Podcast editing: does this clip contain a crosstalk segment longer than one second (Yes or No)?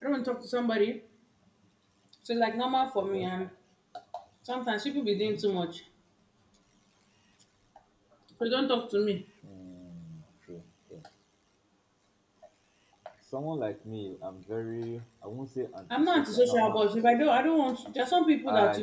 Yes